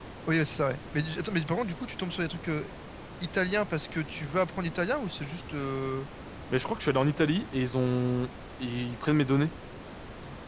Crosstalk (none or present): none